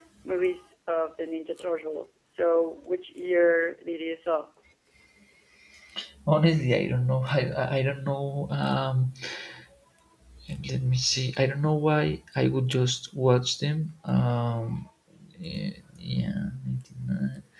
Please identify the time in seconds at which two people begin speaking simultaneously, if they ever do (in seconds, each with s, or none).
none